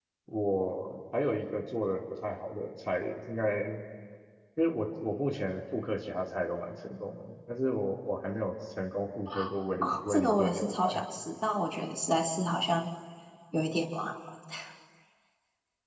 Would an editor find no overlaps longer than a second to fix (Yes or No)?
No